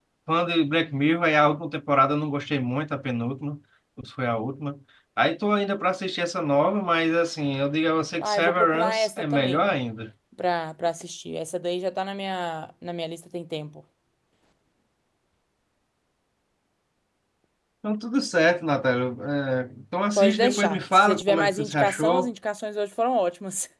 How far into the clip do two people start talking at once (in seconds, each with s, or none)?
8.2 s